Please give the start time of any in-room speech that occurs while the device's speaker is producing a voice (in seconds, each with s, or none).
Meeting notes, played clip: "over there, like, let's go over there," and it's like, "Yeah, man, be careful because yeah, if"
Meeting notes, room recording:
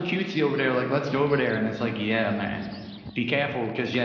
none